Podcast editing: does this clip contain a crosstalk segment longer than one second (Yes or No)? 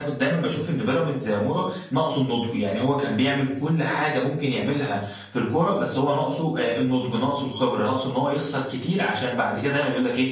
No